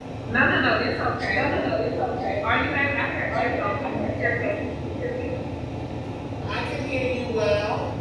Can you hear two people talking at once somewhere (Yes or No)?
Yes